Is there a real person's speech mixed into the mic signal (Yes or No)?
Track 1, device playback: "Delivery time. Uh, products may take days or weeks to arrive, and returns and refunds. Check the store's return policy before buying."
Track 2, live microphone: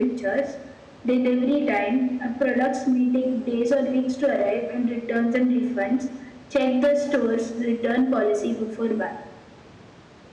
No